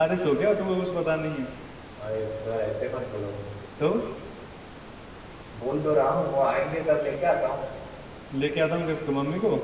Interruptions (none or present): none